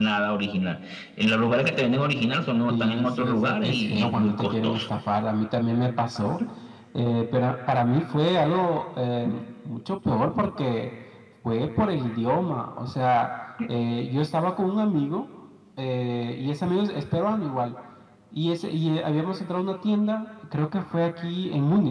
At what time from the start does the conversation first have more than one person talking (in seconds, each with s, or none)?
2.7 s